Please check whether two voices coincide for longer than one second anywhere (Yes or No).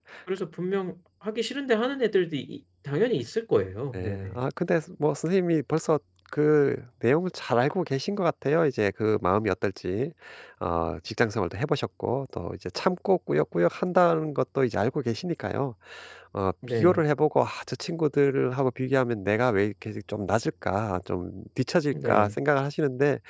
No